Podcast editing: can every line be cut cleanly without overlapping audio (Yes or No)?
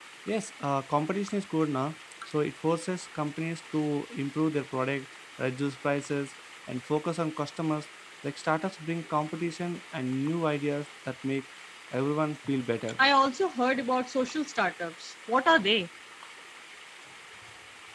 Yes